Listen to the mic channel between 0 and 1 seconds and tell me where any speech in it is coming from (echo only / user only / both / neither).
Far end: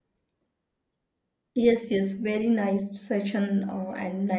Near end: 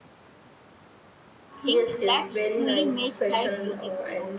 neither